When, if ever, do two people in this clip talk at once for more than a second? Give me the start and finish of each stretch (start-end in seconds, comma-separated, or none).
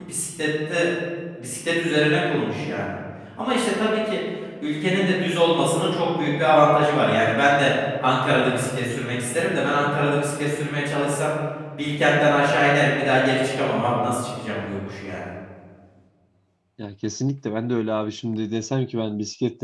none